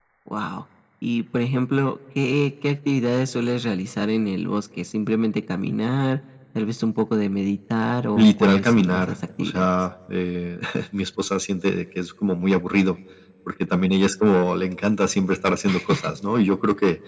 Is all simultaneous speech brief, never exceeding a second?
No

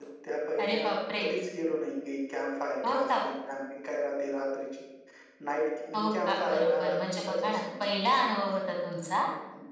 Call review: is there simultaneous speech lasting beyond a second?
Yes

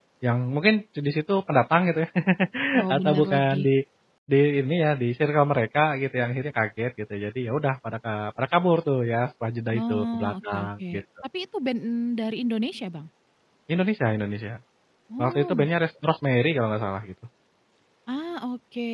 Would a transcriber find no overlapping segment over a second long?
No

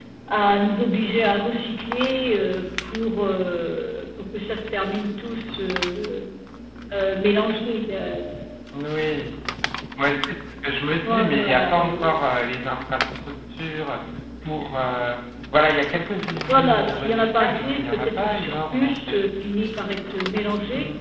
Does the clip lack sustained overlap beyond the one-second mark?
No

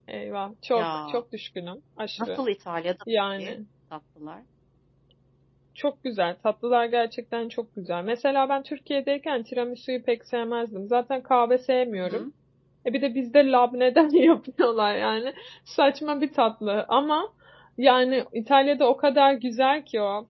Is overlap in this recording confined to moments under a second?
Yes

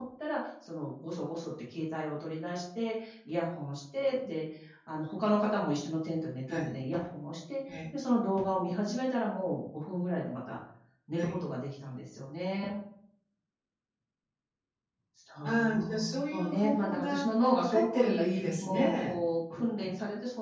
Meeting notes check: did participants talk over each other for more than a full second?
Yes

